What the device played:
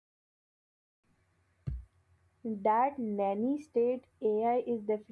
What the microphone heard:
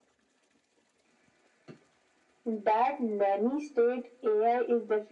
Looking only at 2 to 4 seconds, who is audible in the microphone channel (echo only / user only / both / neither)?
echo only